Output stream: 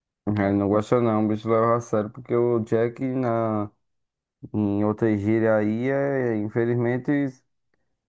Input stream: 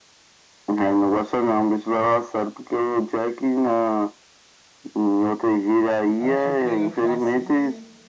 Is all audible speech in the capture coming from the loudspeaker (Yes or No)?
No